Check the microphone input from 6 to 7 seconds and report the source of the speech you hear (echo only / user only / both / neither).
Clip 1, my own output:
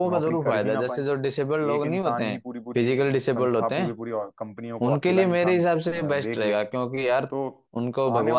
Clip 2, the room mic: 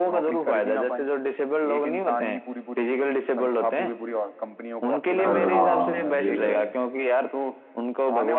both